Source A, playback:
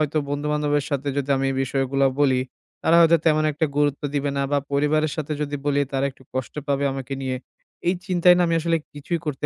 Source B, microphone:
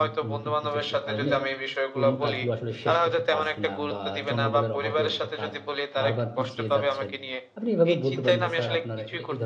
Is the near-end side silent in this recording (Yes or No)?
No